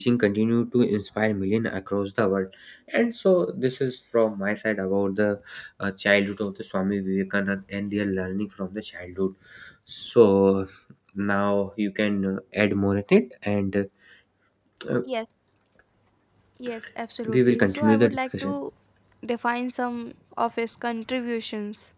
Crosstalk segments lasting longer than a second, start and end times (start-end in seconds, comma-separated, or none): 17.2-18.6